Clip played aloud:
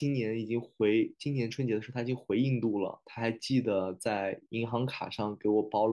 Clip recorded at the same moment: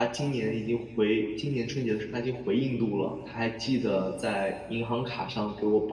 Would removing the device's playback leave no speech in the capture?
Yes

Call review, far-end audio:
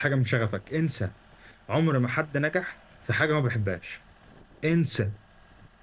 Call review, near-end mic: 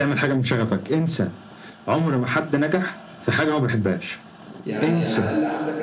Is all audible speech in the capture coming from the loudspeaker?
No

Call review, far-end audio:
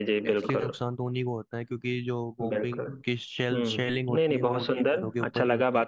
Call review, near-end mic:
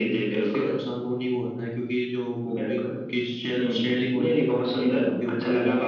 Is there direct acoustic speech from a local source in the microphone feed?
No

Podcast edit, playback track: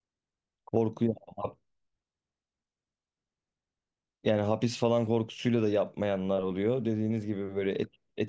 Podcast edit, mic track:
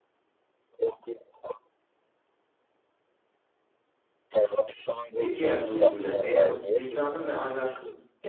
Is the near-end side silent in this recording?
No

